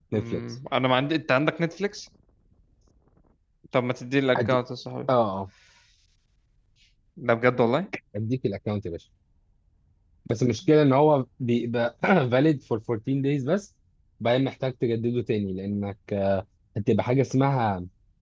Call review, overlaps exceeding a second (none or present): none